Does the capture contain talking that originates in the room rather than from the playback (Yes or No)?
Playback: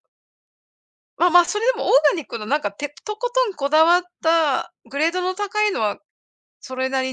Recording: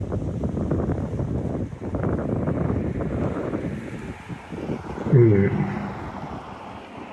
Yes